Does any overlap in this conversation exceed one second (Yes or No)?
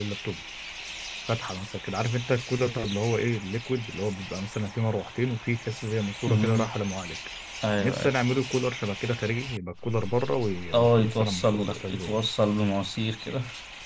Yes